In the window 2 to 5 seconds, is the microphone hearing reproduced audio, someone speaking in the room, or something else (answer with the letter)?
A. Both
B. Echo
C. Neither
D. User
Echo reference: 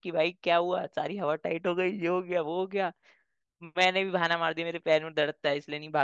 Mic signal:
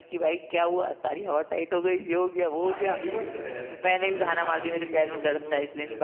A